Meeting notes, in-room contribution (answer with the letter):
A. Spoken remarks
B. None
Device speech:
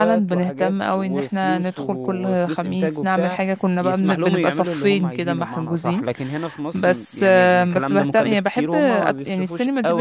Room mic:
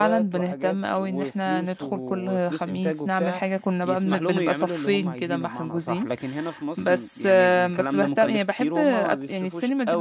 B